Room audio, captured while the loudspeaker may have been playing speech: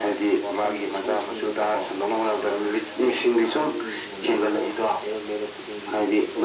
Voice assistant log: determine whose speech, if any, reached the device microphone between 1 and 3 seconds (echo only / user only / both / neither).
echo only